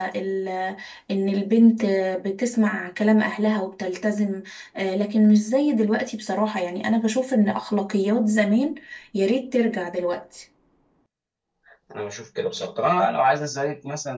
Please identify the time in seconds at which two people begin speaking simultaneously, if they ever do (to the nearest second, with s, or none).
none